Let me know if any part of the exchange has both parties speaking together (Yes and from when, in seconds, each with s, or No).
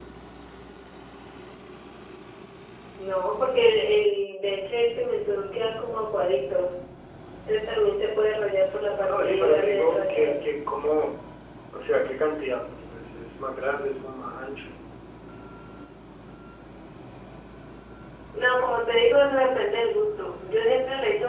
Yes, from 9.1 s